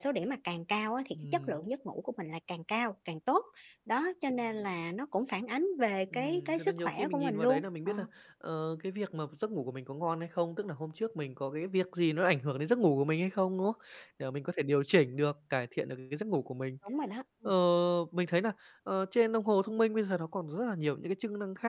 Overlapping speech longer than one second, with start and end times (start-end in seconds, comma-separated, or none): 6.1-7.9